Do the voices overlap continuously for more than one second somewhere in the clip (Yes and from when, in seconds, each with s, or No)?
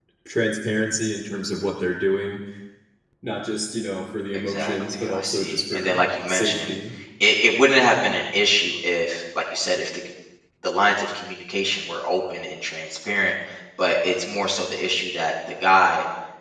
Yes, from 4.3 s